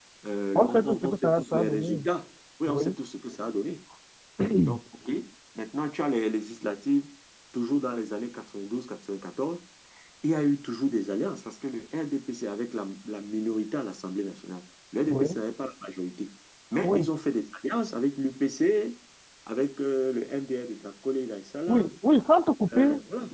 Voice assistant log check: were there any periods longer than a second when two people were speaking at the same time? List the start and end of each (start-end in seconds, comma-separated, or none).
0.6-2.0